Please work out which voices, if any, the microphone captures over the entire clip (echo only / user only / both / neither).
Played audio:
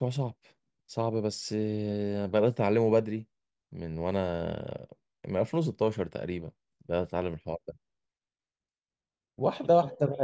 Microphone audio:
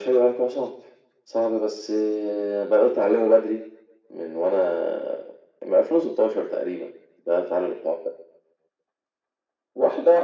echo only